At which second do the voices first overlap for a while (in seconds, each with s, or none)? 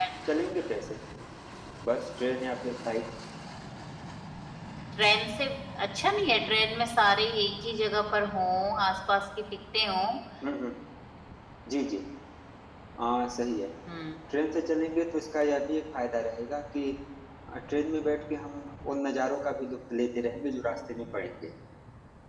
none